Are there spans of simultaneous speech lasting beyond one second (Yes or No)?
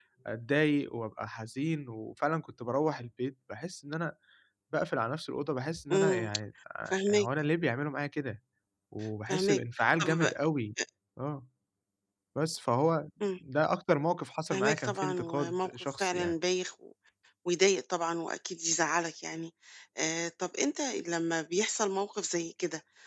Yes